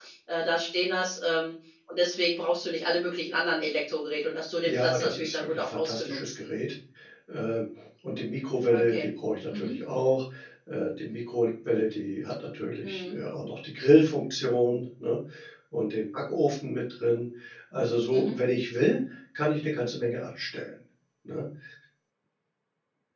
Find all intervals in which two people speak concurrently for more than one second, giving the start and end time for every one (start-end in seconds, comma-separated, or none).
4.7-6.3